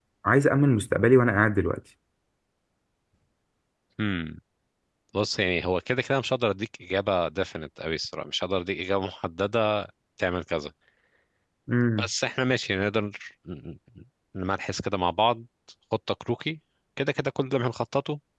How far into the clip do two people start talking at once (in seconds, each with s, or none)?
none